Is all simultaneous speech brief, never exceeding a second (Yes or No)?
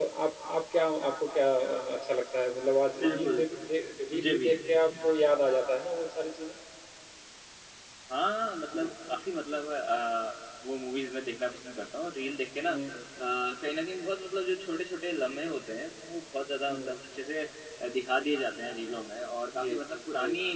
Yes